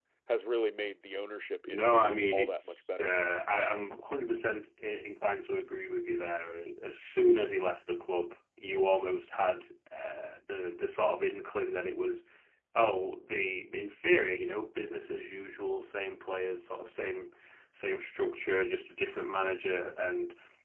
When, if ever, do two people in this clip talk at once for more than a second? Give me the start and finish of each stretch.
1.7-3.1

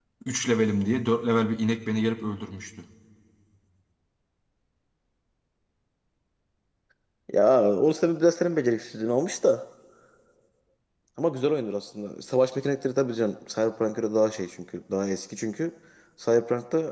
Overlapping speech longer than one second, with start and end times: none

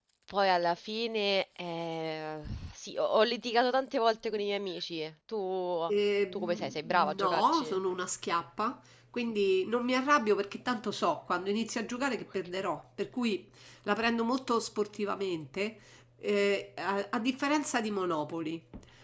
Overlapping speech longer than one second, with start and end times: 6.3-7.8

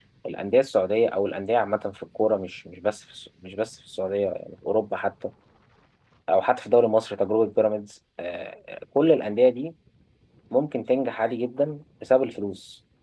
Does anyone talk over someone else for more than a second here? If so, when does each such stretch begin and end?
none

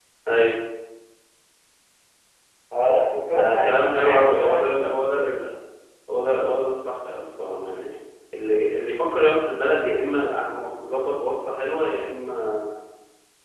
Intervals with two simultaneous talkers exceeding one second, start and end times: 3.3-5.3

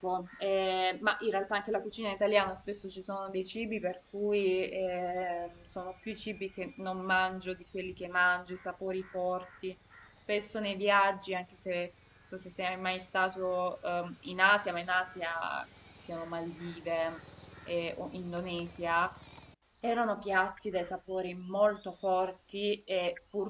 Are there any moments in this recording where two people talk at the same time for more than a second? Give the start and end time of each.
none

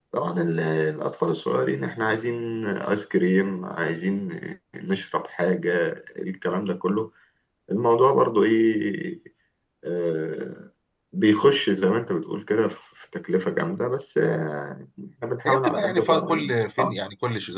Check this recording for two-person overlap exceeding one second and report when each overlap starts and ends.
15.4-17.0

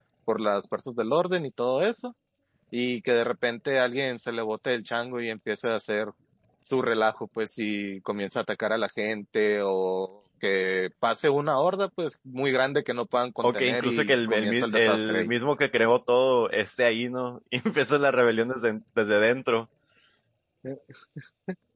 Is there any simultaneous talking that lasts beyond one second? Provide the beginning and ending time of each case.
13.4-15.3

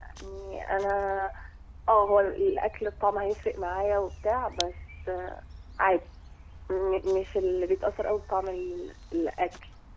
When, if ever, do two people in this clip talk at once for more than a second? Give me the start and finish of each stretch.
none

